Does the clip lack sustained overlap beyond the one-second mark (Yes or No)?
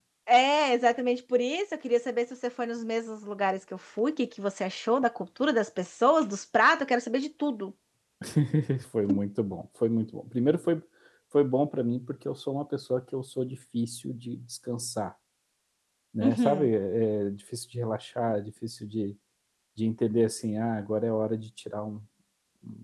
Yes